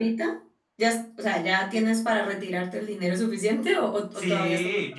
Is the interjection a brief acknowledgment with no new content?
No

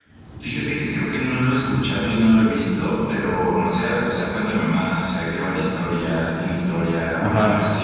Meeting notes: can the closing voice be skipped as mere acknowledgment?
Yes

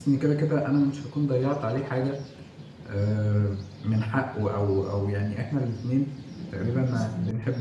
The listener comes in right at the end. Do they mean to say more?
No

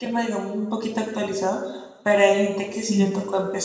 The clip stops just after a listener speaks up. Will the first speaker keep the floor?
Yes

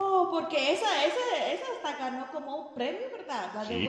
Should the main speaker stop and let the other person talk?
Yes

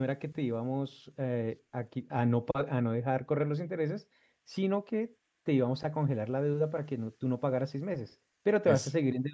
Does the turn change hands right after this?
No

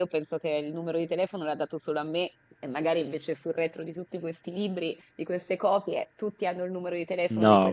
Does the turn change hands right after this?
Yes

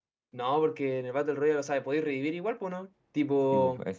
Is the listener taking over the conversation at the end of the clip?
Yes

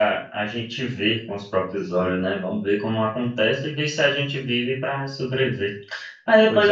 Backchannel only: Yes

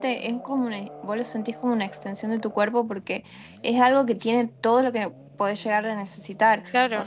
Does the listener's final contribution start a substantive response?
No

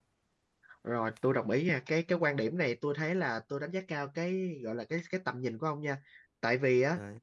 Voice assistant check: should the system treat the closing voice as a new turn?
No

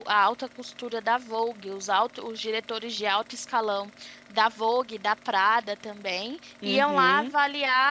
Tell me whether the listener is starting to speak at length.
No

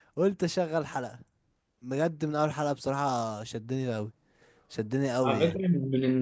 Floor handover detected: Yes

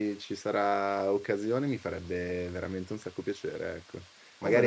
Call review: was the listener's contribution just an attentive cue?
Yes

